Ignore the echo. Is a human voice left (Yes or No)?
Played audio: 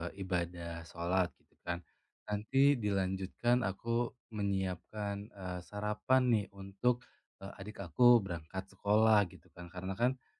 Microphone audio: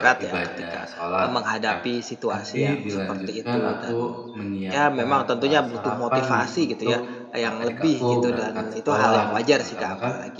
Yes